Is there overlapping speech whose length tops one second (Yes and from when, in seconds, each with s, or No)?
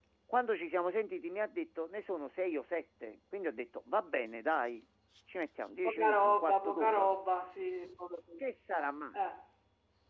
Yes, from 5.8 s